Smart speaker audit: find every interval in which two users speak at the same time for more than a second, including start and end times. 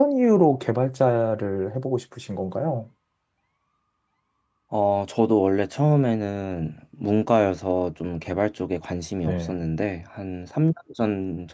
none

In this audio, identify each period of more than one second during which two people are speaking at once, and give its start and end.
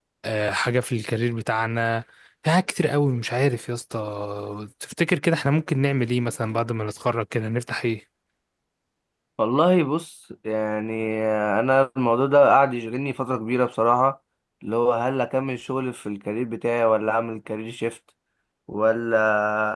none

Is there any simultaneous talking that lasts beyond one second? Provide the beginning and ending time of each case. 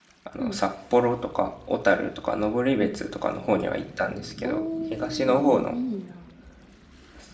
4.4-5.8

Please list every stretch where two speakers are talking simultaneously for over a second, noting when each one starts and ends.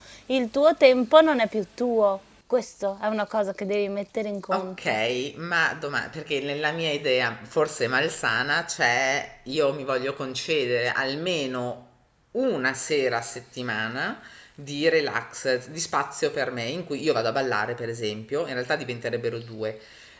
none

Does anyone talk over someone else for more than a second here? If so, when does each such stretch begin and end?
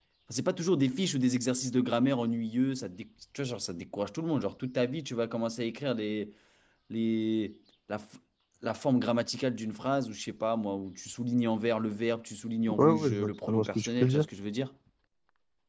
12.7-14.2

